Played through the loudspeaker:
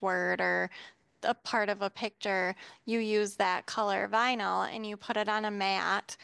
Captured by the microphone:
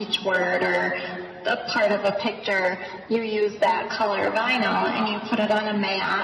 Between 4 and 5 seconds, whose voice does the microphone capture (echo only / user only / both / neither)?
echo only